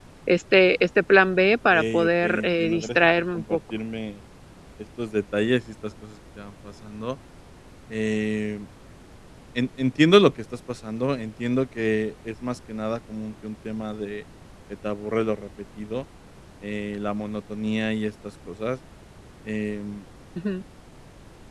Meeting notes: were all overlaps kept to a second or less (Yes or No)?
No